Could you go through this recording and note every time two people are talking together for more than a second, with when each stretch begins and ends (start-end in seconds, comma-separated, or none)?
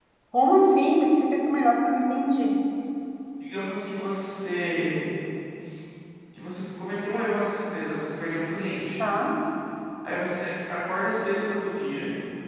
none